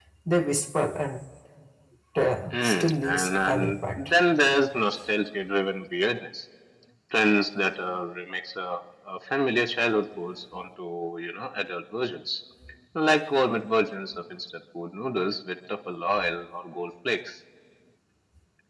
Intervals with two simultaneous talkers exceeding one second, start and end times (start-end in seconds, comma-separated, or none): 2.5-4.1